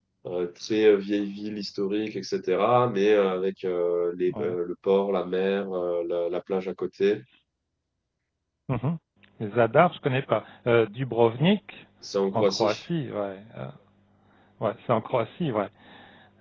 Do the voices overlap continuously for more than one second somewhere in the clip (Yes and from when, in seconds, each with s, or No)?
No